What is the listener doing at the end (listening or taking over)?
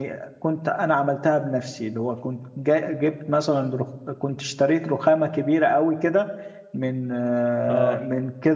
listening